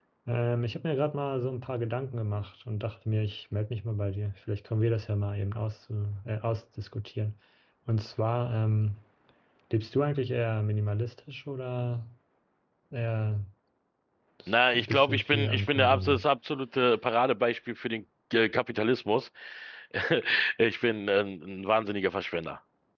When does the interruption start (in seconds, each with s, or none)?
14.7 s